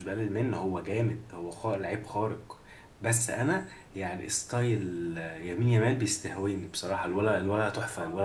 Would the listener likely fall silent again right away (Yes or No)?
No